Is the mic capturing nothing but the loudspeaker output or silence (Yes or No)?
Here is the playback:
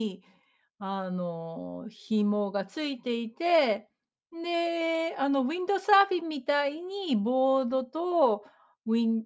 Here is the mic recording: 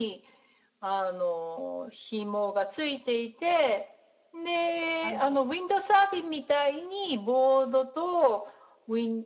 No